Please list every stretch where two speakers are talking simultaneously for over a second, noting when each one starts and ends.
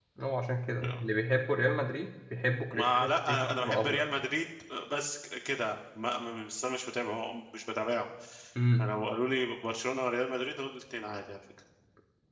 2.7-4.0

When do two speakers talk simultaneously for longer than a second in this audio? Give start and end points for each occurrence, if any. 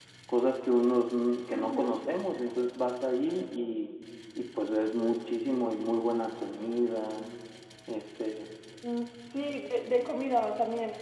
none

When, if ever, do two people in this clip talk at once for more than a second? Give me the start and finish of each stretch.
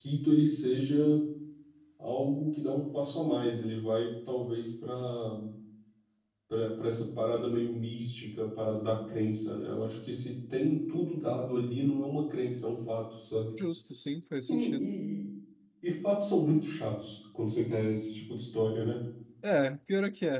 none

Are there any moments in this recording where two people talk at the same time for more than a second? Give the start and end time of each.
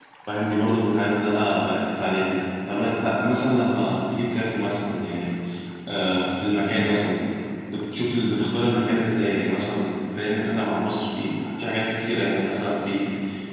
none

